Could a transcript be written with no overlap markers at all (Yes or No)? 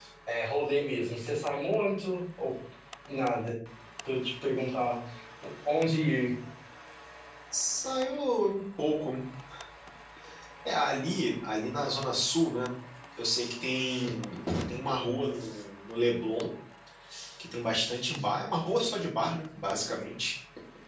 Yes